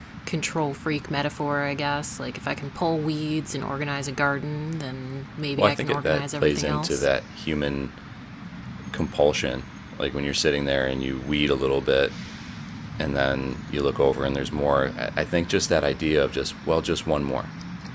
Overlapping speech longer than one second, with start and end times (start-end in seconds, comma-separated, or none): 5.6-7.1